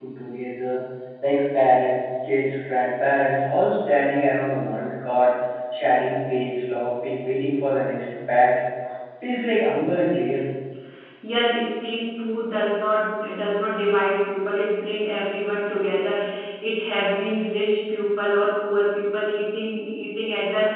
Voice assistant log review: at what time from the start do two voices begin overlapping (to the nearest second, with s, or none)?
none